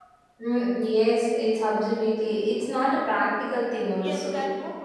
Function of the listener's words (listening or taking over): taking over